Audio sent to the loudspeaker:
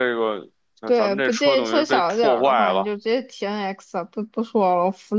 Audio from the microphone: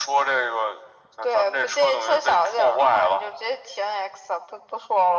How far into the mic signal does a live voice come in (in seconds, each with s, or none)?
none